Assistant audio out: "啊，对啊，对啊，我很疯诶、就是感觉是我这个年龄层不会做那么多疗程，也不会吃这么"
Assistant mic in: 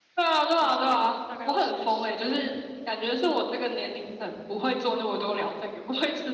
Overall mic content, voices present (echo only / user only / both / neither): both